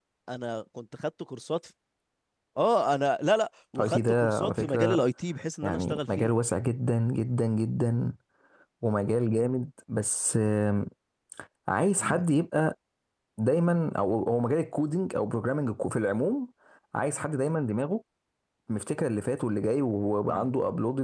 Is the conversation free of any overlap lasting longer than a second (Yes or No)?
No